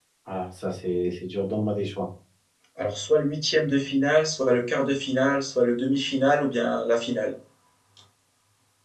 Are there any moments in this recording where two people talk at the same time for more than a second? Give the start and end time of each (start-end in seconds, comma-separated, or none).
none